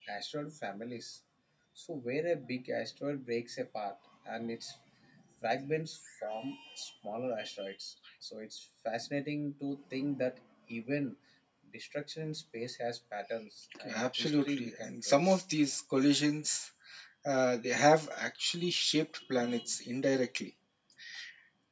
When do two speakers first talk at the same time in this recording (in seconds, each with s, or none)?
13.9 s